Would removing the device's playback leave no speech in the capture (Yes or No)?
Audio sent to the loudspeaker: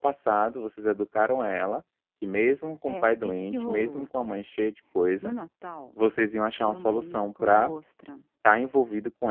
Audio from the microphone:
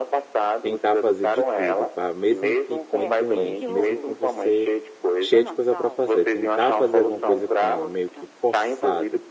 No